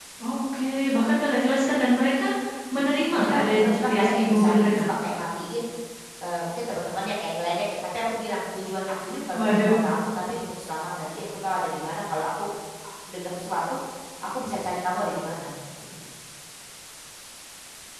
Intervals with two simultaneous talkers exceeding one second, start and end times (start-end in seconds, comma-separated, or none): 3.1-4.9